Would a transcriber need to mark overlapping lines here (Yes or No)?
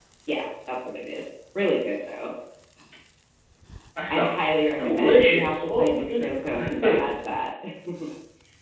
Yes